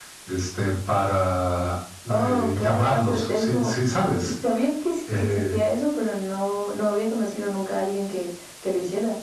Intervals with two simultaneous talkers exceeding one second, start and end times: 2.1-3.8

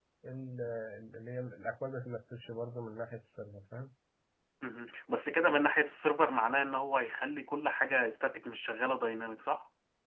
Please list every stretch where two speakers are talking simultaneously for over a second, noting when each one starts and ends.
none

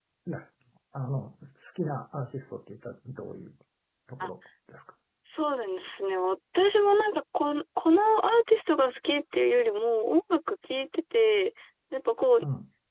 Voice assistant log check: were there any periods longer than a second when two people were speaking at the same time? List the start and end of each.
none

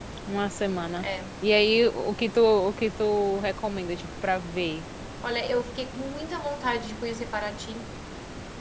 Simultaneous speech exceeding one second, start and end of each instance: none

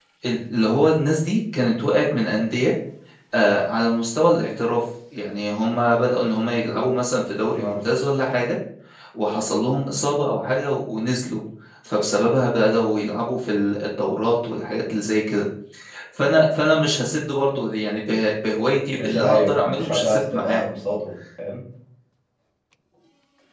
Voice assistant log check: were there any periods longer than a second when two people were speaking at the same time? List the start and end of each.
19.0-20.7

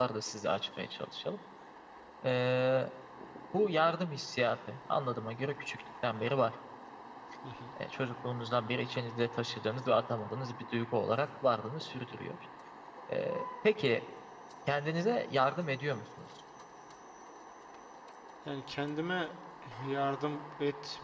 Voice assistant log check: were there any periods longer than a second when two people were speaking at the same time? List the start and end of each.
none

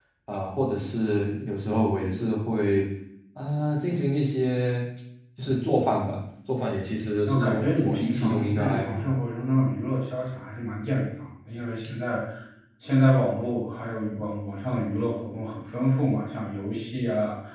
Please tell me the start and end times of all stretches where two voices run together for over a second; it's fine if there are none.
7.2-9.0

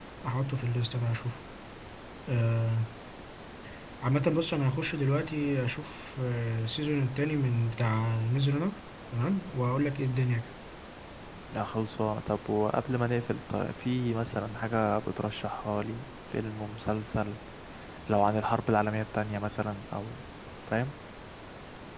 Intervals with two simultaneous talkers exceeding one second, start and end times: none

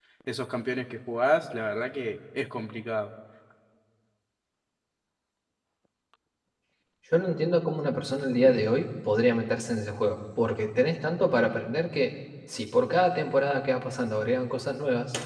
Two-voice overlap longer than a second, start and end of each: none

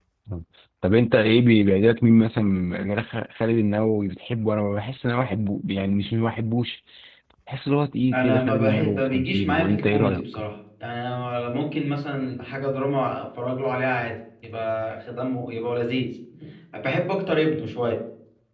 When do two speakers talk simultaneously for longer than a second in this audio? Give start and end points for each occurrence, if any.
8.1-10.2

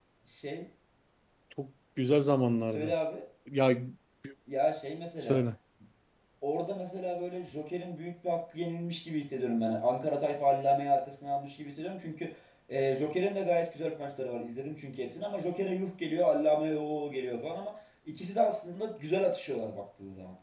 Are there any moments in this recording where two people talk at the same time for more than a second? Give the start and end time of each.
none

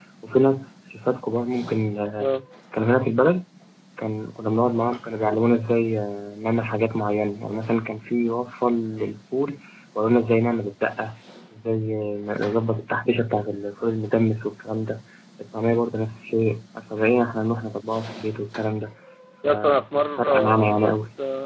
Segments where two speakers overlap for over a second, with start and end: 19.4-20.9

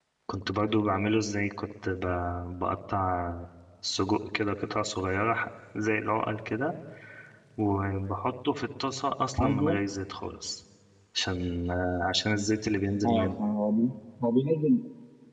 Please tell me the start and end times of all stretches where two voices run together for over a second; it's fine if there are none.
none

